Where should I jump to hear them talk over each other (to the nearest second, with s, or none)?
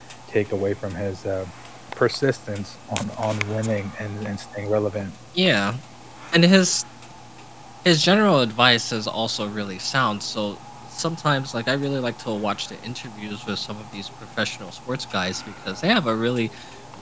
none